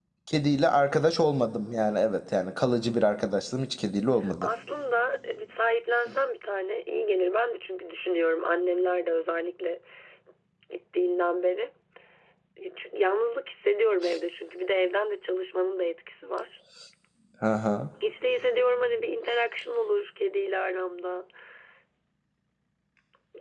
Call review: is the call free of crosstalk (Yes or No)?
Yes